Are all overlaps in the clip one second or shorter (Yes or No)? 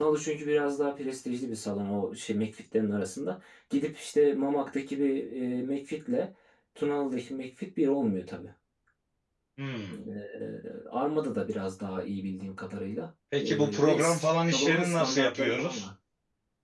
No